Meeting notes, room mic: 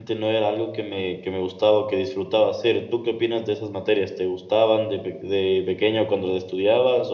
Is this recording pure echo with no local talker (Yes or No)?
No